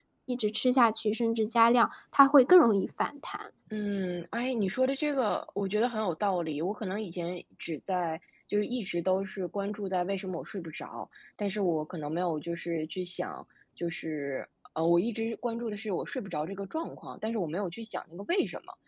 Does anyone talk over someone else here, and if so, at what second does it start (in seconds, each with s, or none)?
none